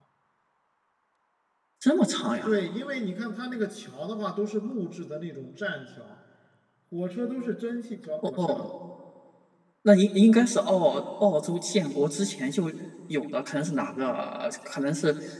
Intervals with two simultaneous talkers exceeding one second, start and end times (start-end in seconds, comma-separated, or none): none